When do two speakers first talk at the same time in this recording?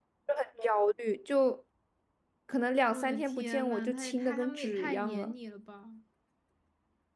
3 s

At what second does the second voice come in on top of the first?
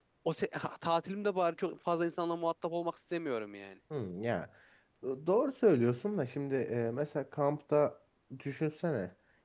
none

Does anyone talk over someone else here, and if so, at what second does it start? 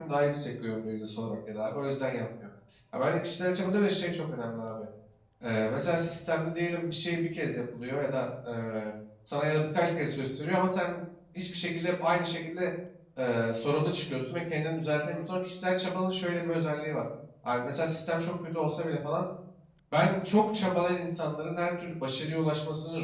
none

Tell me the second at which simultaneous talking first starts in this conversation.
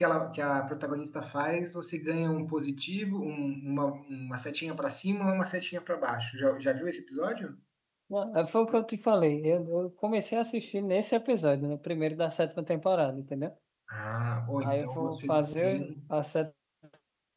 15 s

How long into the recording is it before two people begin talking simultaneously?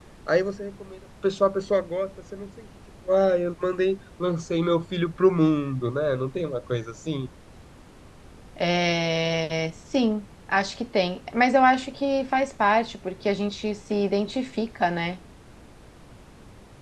none

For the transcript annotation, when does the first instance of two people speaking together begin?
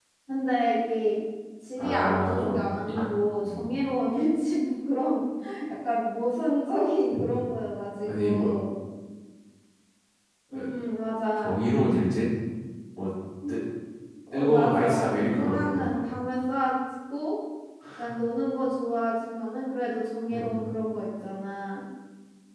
2 s

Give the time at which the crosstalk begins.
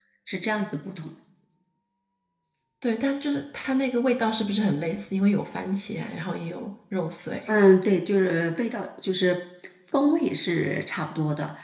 none

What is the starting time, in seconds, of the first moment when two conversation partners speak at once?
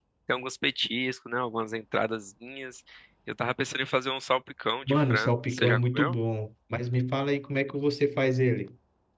5 s

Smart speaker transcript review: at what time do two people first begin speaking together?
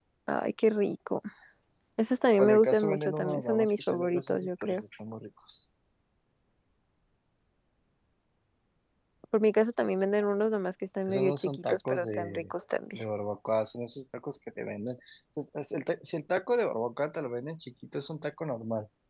2 s

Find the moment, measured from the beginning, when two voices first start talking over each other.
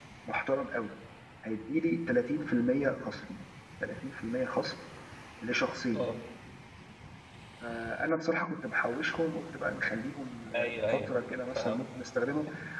11 s

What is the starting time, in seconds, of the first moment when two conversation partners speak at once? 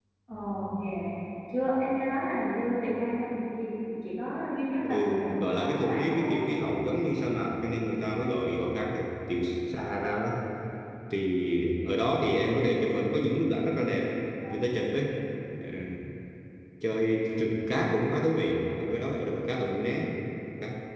5 s

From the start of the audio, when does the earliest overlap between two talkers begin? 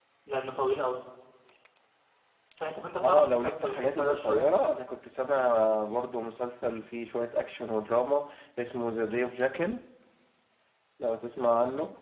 3 s

